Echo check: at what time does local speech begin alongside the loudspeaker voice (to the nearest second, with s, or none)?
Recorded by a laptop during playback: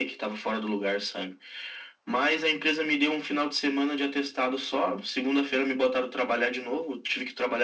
none